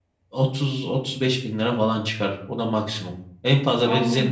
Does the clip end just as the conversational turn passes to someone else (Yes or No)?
No